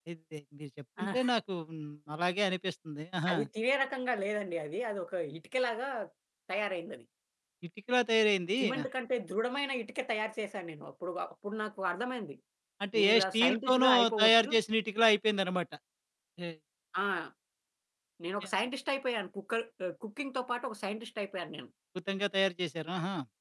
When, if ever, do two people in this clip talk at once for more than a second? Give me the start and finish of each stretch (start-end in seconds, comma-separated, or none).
13.0-14.5